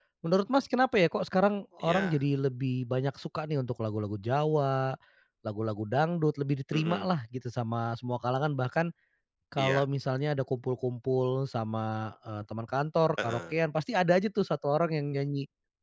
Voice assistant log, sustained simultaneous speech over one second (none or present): none